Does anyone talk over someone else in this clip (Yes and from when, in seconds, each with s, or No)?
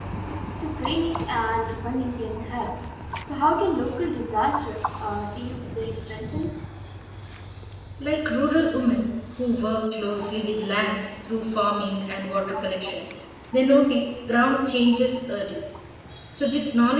No